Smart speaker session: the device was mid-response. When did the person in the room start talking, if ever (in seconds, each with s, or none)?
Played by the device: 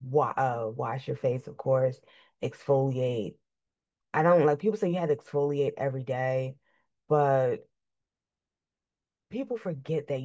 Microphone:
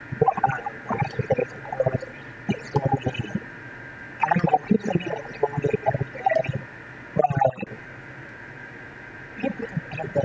none